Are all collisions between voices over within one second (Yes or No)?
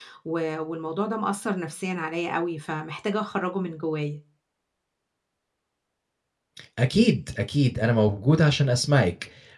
Yes